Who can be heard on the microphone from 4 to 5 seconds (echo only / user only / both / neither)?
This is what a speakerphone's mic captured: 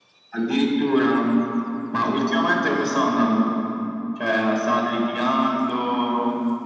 echo only